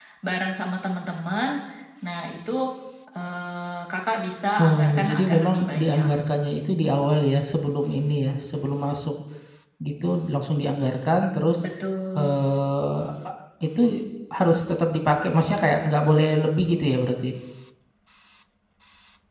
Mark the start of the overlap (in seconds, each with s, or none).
4.6 s